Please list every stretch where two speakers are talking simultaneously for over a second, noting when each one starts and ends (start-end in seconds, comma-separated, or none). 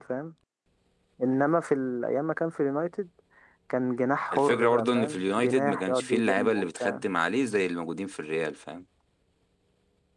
4.3-7.0